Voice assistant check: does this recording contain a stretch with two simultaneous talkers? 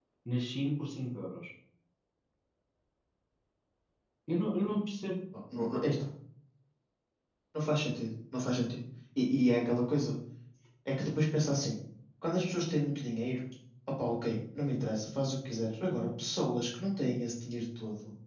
No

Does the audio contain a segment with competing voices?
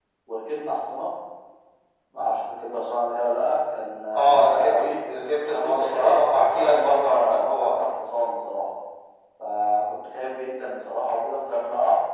Yes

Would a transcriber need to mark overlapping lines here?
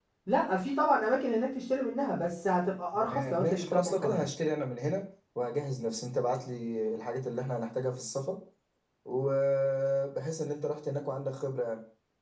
Yes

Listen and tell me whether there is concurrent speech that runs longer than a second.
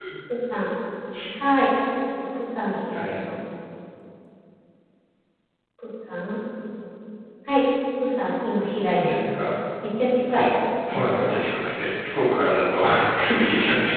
No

